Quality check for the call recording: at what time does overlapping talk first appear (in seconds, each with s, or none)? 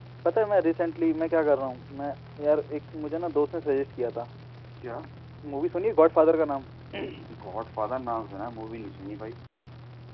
none